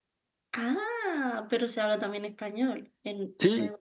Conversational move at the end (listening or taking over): taking over